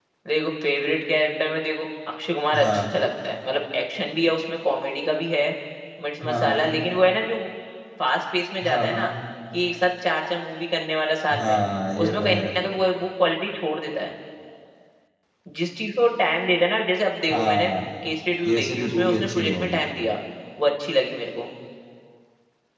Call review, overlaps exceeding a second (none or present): present